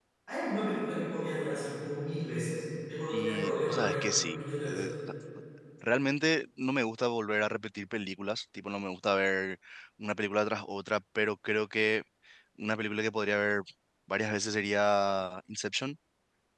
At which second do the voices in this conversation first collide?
3.1 s

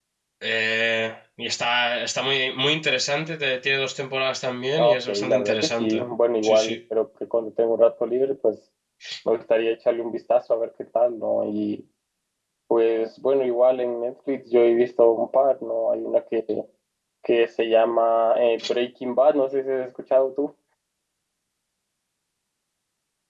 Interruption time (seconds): 4.8 s

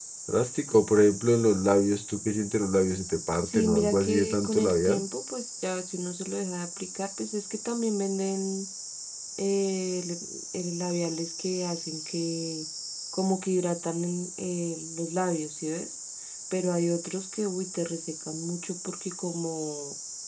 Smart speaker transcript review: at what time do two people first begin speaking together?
3.5 s

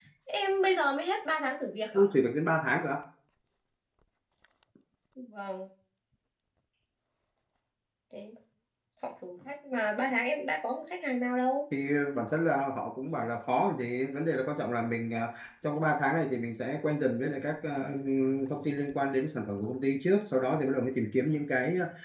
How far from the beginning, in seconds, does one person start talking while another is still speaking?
none

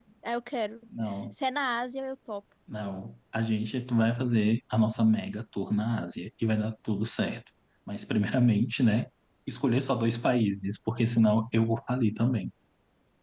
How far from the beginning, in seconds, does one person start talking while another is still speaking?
none

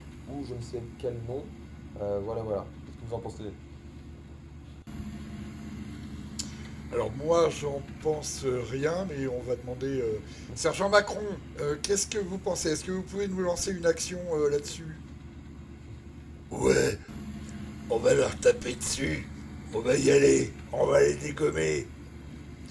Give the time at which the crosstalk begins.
none

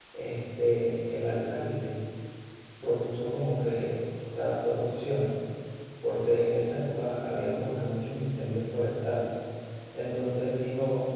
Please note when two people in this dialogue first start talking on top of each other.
none

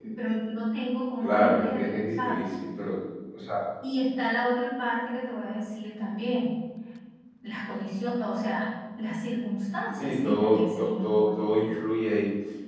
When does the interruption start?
1.2 s

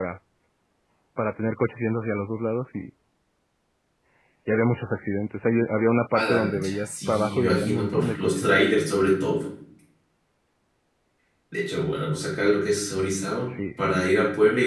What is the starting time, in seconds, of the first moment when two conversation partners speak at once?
6.1 s

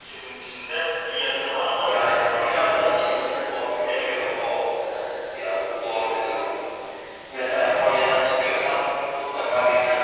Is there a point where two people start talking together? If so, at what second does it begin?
1.7 s

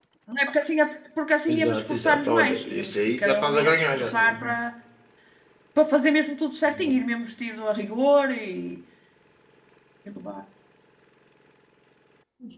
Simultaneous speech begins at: 1.5 s

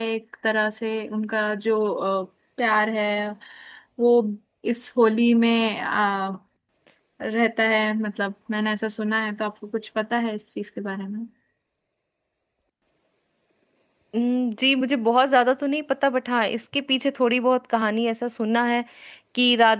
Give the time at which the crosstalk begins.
none

